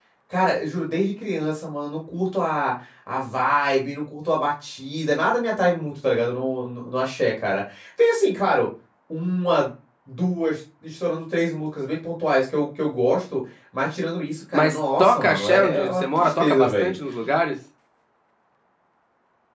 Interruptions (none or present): present